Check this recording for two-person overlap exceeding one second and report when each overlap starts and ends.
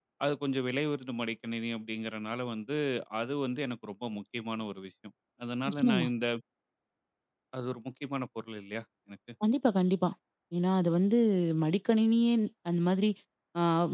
none

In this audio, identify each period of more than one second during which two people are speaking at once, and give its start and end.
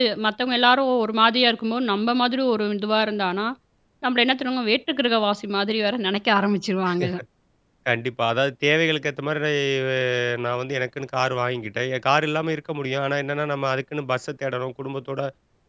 none

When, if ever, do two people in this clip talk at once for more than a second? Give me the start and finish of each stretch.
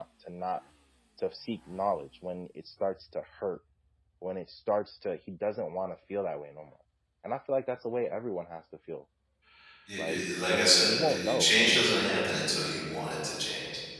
10.0-12.2

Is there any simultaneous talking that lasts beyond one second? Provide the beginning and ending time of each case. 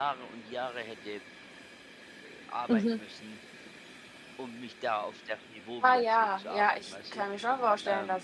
5.8-7.2

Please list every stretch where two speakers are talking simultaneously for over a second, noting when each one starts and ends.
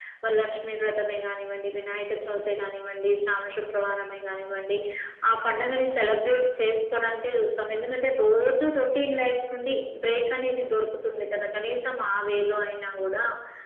none

